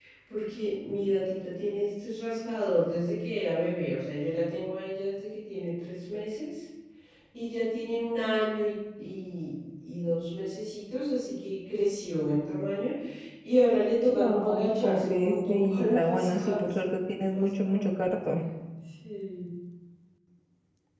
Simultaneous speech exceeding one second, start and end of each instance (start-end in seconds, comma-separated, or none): 14.1-17.9